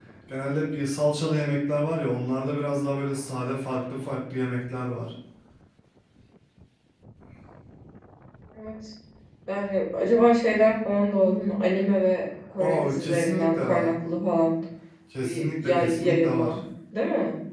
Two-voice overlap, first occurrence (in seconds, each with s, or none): 12.6 s